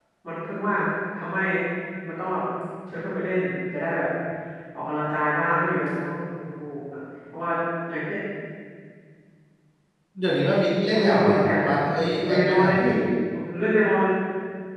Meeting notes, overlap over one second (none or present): present